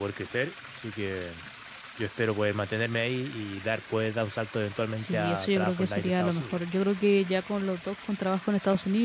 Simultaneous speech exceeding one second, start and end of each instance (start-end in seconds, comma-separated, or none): 5.0-6.6